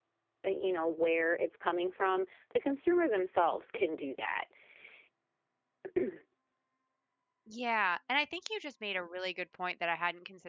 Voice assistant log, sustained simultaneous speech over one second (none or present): none